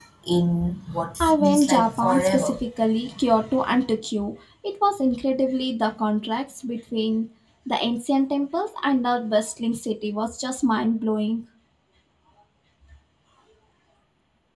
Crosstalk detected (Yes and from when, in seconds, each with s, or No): Yes, from 1.2 s